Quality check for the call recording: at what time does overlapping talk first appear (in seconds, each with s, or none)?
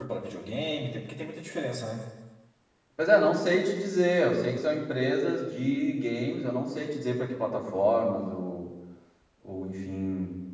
none